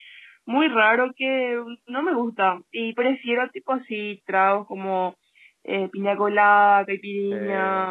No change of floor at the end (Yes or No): Yes